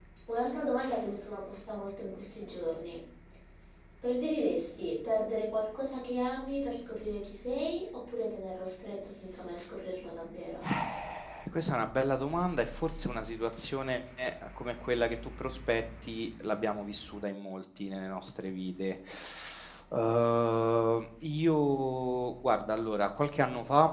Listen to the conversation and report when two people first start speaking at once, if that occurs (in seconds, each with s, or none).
none